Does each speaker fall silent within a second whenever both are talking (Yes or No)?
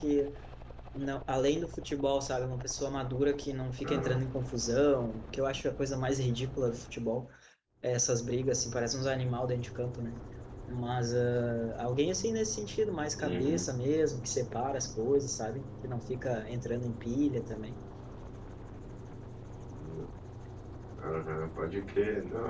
Yes